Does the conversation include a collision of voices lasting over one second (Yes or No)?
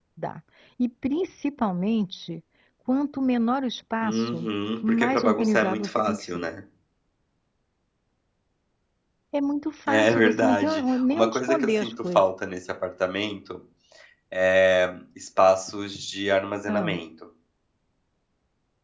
Yes